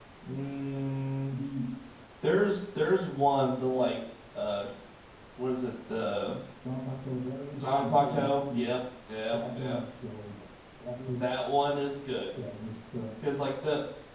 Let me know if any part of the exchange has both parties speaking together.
Yes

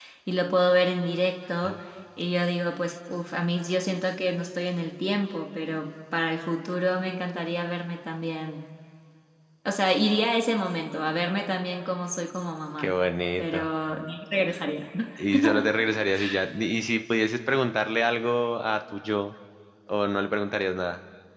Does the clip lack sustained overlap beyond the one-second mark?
Yes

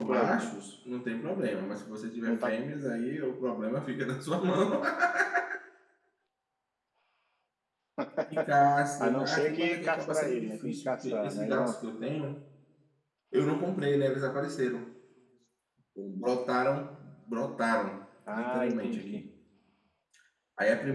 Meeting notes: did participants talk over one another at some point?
Yes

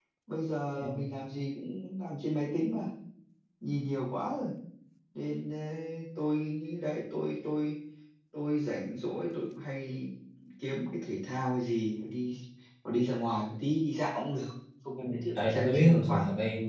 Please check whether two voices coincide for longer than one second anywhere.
Yes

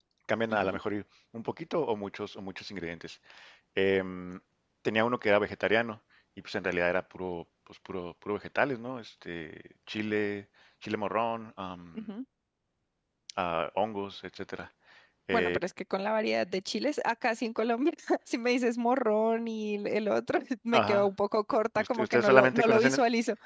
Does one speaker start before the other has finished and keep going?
Yes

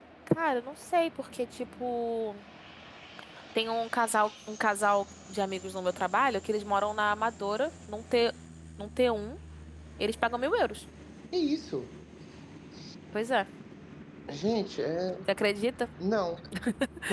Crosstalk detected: No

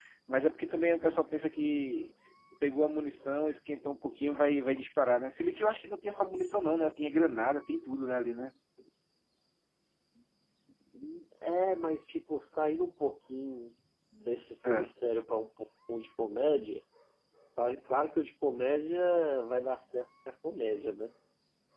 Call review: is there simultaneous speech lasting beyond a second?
No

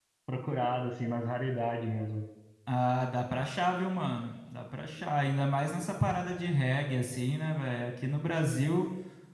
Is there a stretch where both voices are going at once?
No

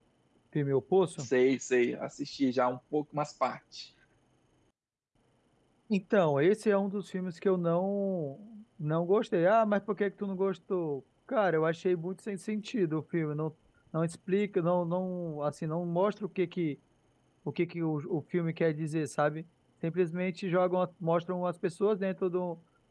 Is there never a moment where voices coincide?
Yes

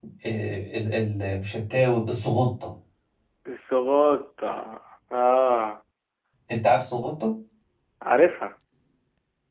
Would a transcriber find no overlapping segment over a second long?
Yes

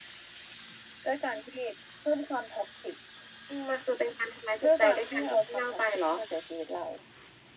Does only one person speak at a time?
No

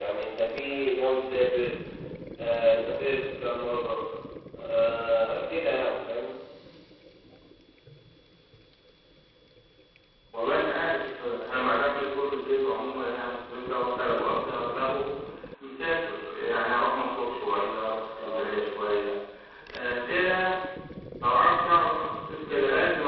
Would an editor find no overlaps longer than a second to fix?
Yes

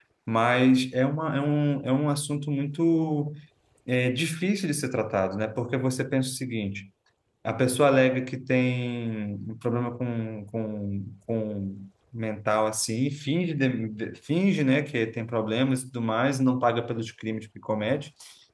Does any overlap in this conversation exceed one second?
No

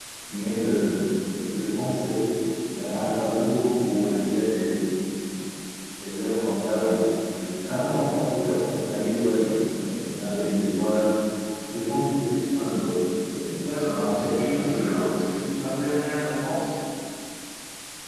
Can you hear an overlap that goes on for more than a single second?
Yes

